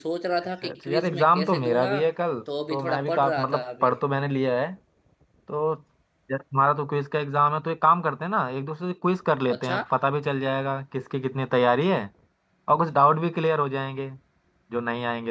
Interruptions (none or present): present